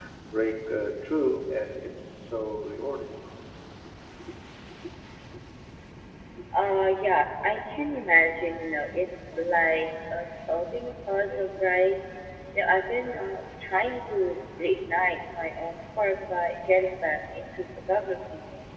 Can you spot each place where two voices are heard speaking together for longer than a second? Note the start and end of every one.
none

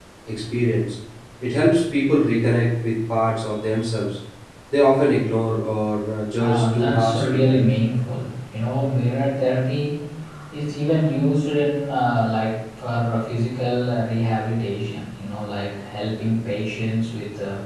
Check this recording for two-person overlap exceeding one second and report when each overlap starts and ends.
6.4-7.6

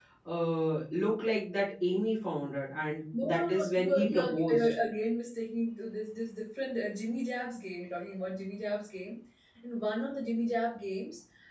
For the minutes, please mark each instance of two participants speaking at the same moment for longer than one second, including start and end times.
3.2-4.7

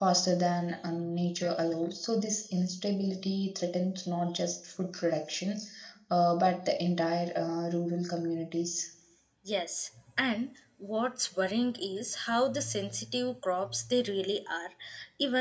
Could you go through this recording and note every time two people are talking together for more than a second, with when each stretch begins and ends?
none

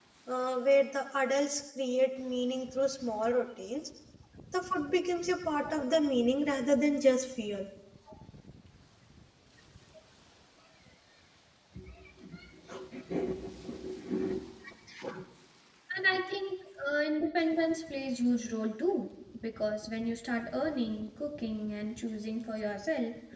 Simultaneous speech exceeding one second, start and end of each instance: none

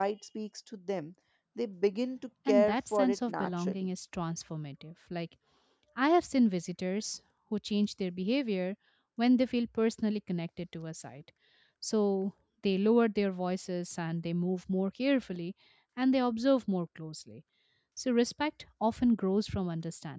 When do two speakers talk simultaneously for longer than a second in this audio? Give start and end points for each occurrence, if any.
2.5-3.9

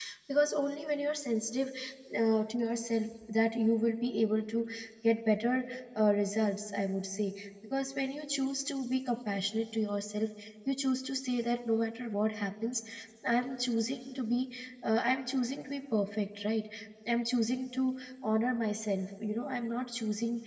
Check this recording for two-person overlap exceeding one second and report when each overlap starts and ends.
none

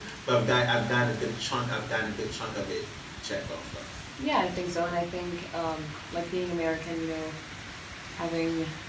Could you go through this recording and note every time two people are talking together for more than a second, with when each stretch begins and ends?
none

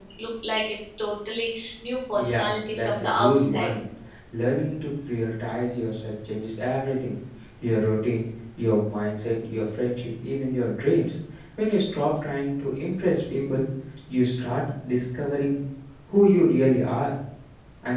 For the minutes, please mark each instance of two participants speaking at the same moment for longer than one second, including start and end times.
2.1-3.7

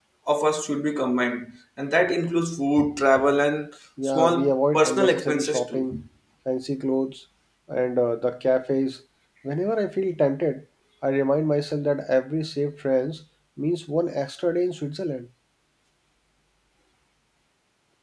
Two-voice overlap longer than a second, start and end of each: 4.0-5.8

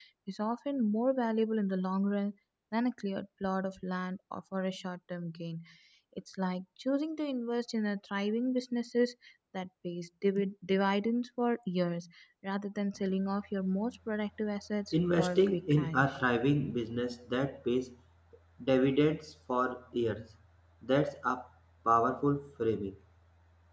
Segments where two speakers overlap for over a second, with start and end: 14.9-16.1

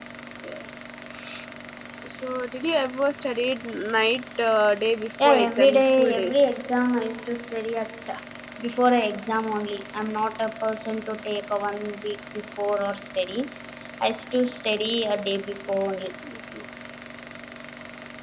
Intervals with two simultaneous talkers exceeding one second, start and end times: 5.2-6.6

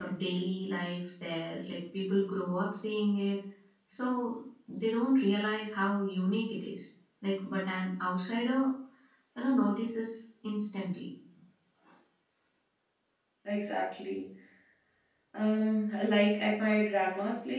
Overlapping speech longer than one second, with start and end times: none

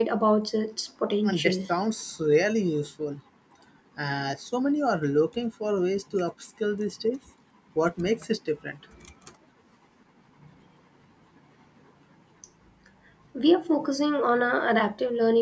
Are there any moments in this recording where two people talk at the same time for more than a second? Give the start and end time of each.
none

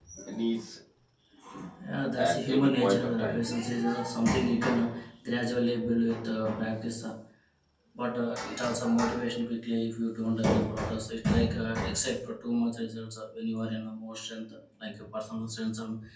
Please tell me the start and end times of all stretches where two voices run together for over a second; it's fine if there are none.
2.2-3.4

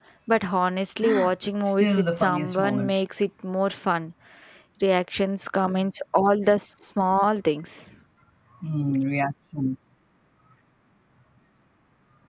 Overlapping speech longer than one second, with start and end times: 1.6-2.9

